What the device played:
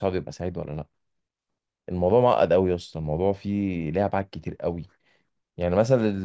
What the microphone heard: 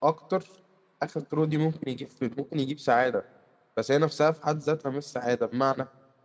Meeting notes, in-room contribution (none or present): present